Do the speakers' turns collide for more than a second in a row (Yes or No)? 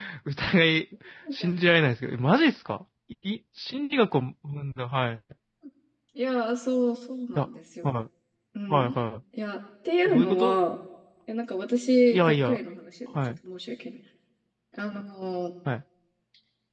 No